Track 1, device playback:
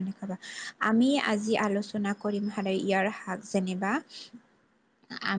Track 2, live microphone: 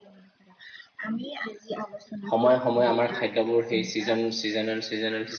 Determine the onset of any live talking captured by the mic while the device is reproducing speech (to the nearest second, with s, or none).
2 s